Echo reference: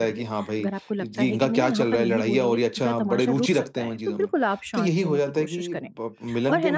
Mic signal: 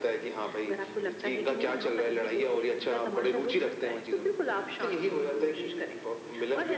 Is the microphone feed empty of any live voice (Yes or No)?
Yes